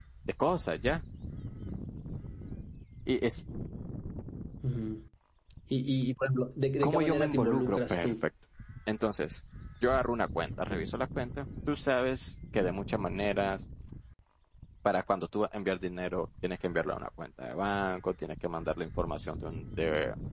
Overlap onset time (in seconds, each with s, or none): 6.8 s